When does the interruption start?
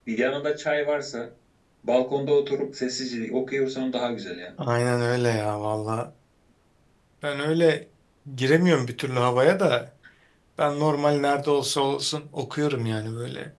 none

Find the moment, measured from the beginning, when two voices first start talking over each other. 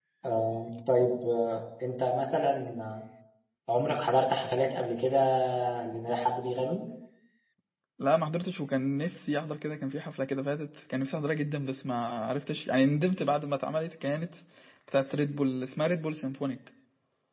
none

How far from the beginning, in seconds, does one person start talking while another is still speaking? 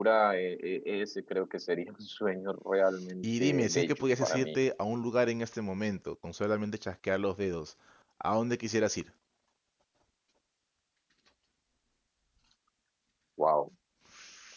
3 s

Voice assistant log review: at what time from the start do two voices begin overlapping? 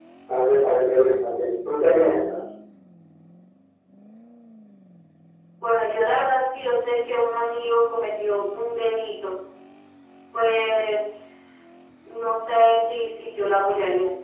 none

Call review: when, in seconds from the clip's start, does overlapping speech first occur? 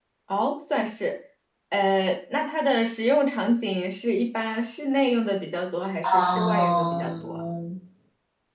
6 s

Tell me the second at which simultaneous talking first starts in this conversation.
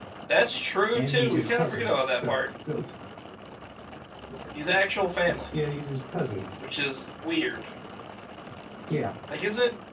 1 s

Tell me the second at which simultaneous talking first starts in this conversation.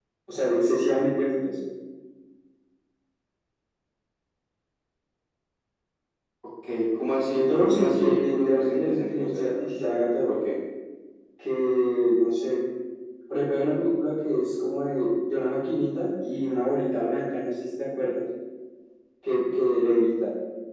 7 s

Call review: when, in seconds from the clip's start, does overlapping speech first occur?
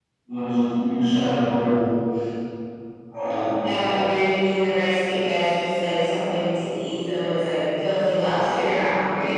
none

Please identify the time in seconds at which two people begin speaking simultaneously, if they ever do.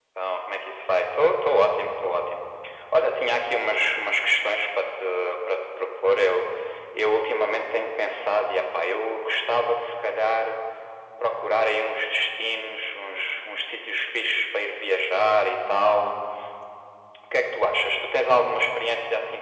none

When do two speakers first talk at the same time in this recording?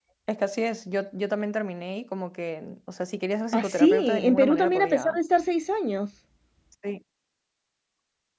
4 s

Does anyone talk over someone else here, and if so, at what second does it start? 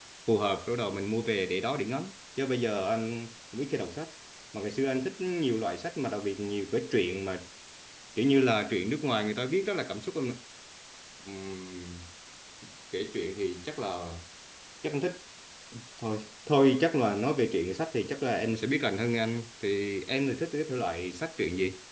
none

